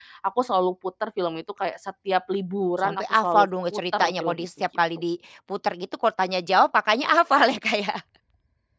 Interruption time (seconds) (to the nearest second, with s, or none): 3 s